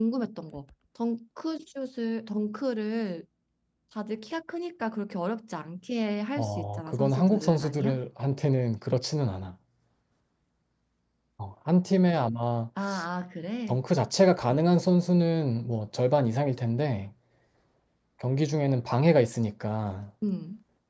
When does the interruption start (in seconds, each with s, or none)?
6.4 s